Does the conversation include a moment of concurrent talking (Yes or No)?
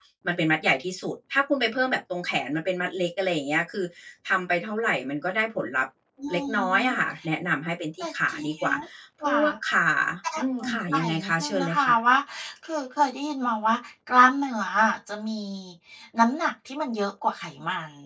Yes